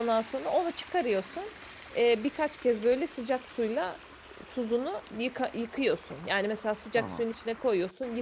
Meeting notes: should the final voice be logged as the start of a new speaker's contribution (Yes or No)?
No